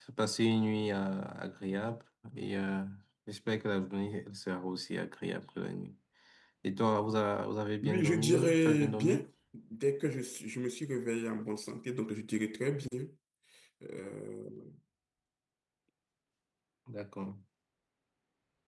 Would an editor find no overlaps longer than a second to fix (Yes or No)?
No